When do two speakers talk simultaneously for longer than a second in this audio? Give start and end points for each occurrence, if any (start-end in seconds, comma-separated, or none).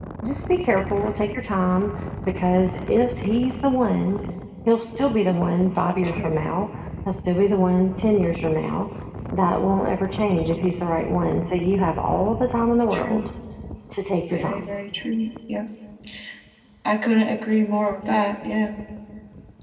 none